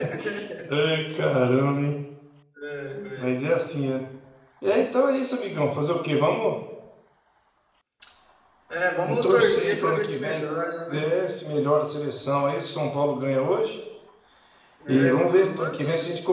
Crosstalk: present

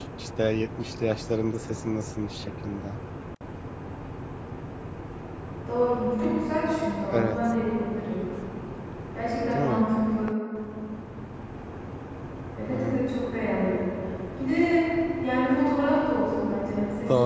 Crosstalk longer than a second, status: none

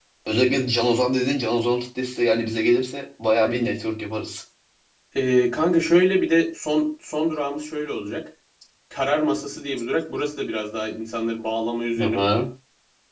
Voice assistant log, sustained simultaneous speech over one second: none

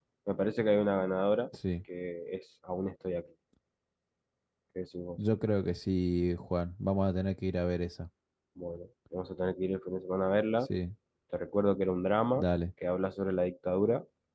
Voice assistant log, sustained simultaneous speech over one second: none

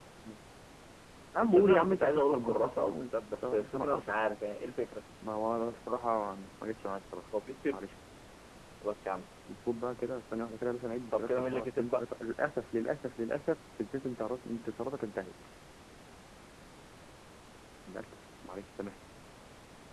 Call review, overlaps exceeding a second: present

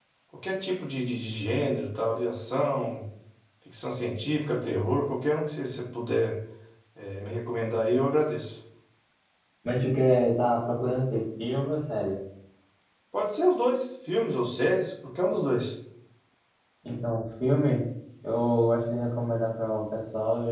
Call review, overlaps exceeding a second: none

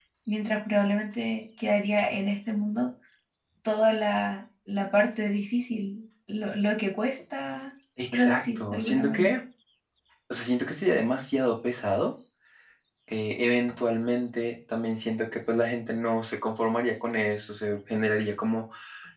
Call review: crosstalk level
present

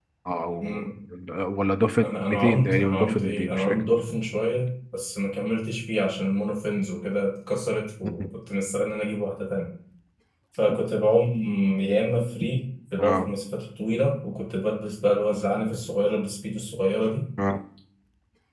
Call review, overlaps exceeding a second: present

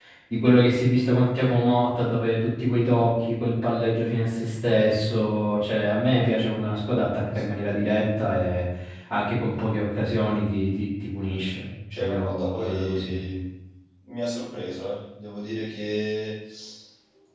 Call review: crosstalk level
present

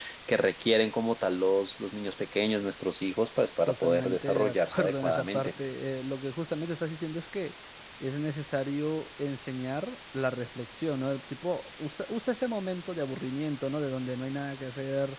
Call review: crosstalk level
present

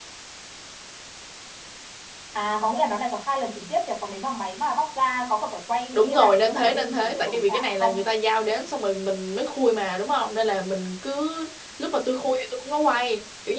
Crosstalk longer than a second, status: present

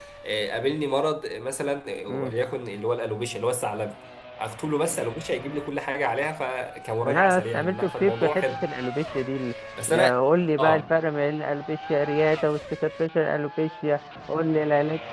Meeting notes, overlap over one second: present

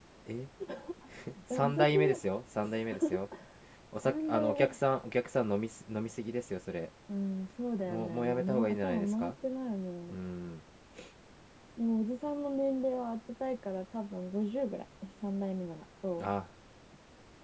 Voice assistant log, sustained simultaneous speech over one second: present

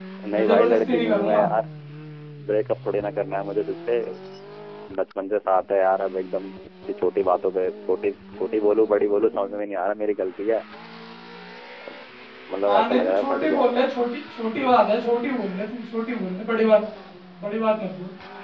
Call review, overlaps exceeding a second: present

